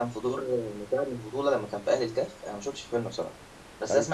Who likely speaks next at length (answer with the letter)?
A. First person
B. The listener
A